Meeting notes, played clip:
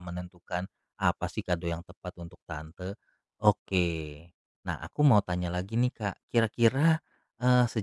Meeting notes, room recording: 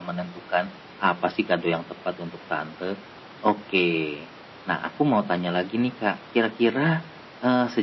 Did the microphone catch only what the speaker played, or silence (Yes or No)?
Yes